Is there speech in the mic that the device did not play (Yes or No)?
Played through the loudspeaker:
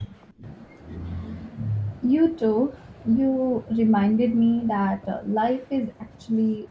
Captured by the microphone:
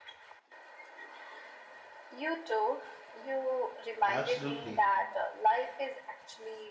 Yes